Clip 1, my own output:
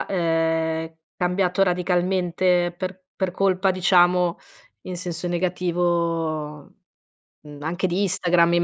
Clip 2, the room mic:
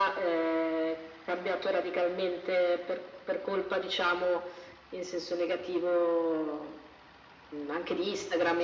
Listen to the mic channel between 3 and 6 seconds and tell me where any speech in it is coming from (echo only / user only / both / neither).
echo only